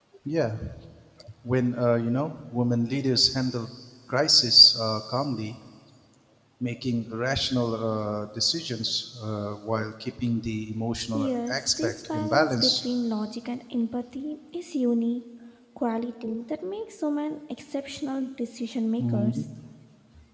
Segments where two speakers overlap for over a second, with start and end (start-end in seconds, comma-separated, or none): 11.1-12.8